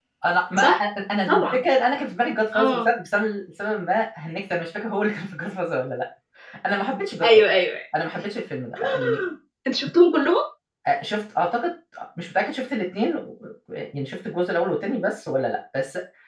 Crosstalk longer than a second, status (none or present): none